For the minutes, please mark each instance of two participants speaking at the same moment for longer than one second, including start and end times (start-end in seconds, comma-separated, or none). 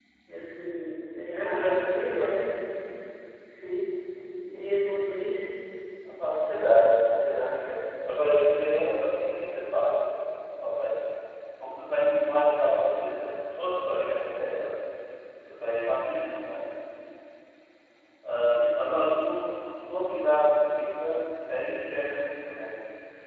1.3-2.5